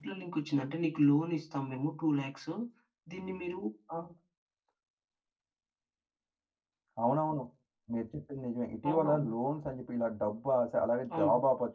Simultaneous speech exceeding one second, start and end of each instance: none

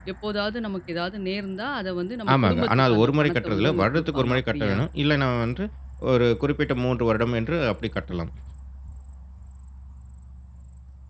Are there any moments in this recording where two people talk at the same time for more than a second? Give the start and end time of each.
2.3-4.8

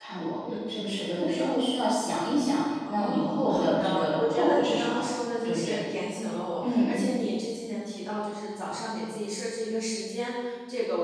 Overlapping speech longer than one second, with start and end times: 2.9-5.0

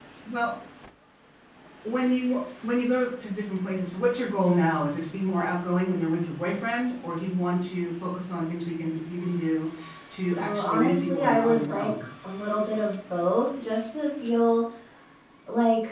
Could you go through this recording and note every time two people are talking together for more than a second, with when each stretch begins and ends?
10.4-12.0

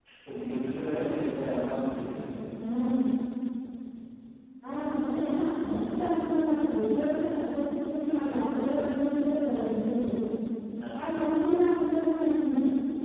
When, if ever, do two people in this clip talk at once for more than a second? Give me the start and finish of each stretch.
none

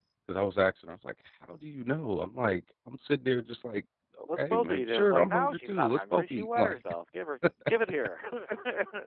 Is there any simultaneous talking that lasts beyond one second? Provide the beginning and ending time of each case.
4.4-6.8

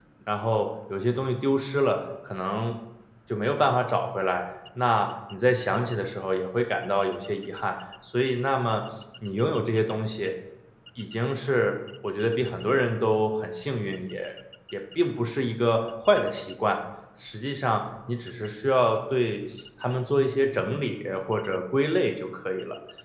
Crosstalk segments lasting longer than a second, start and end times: none

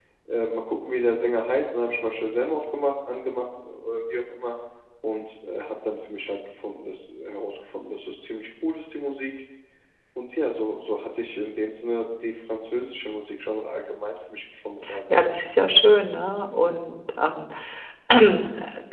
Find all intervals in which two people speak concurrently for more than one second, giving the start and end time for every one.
none

